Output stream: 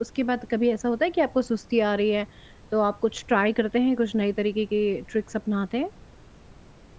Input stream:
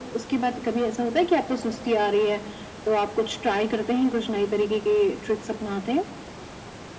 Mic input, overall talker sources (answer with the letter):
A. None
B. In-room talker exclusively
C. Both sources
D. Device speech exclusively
D